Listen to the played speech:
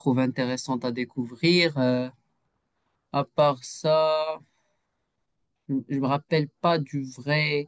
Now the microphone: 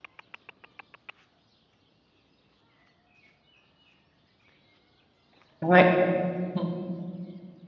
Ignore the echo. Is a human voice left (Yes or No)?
Yes